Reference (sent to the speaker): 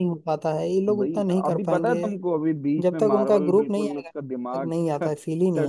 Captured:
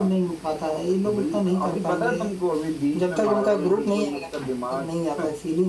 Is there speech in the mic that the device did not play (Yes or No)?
No